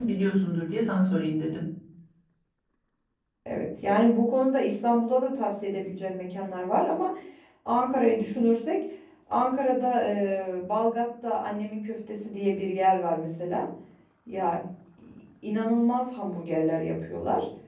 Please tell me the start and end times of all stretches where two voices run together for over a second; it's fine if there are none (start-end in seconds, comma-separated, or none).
none